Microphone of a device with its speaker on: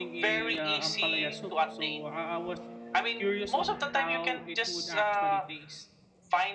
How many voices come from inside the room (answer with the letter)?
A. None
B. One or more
B